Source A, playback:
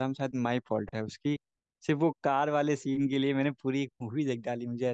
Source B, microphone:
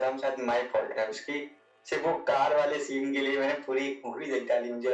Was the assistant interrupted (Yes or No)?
No